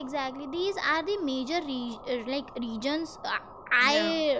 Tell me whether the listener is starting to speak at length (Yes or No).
No